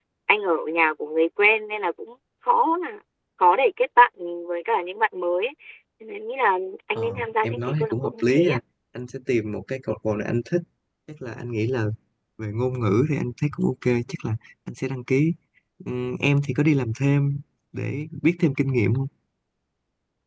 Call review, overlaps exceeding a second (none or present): present